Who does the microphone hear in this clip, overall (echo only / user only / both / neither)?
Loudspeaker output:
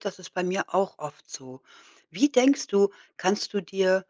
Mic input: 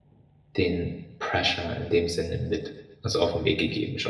user only